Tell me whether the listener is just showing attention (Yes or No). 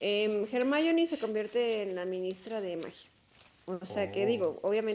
Yes